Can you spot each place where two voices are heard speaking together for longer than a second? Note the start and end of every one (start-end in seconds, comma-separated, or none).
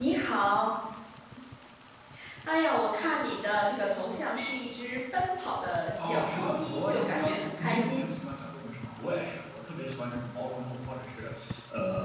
6.0-8.2